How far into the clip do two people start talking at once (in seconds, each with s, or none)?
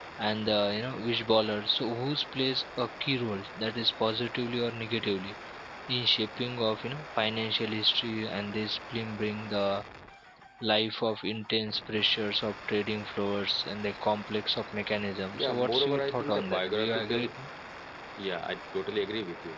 15.3 s